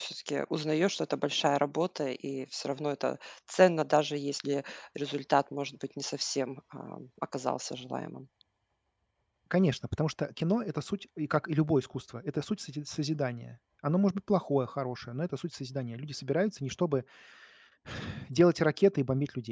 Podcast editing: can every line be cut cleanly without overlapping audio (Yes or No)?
Yes